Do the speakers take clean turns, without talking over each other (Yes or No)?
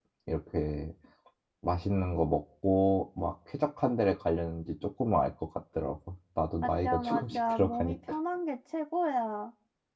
No